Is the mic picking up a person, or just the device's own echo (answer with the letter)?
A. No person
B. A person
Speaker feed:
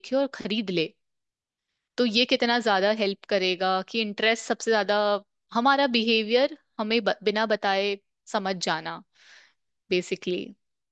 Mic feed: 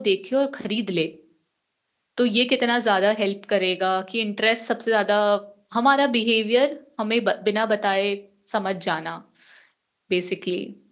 A